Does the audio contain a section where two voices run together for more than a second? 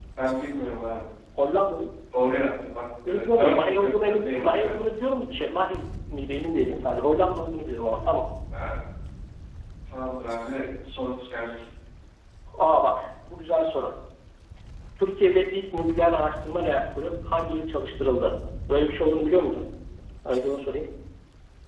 Yes, from 3.1 s

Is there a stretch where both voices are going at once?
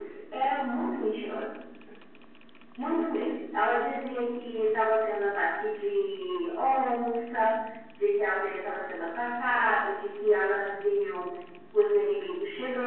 No

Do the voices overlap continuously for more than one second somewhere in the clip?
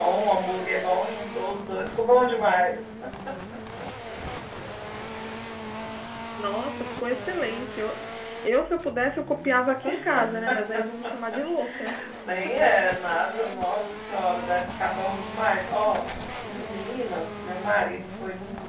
No

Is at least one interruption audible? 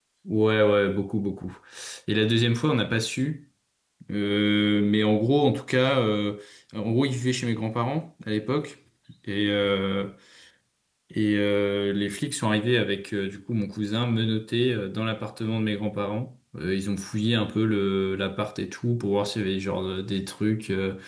No

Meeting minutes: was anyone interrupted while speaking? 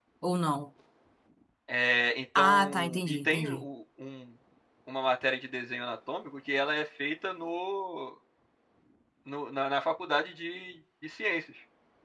Yes, from 2.4 s

